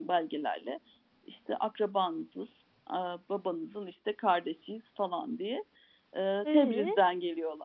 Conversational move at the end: listening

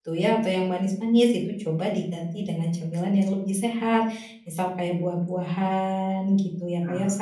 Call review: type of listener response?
listening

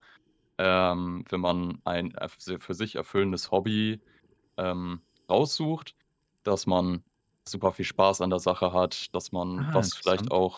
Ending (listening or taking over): listening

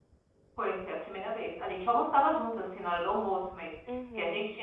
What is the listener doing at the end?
listening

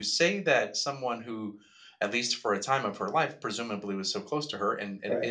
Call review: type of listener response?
listening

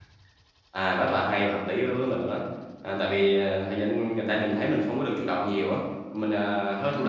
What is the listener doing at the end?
listening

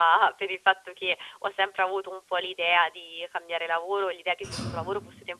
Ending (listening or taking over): listening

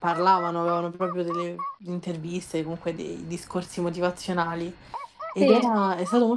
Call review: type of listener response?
listening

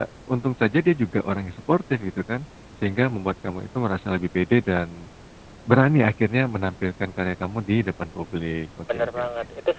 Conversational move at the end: taking over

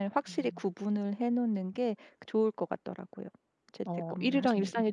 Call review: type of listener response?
taking over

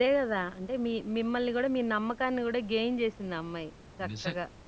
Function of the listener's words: taking over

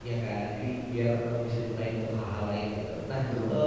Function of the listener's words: listening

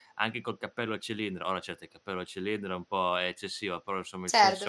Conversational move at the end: listening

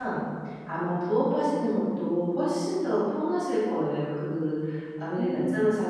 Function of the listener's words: listening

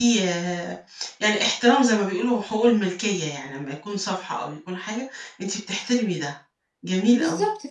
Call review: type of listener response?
taking over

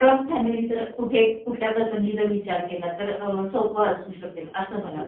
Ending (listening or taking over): taking over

